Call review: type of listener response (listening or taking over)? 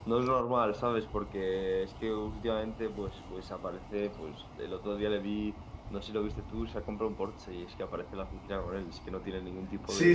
taking over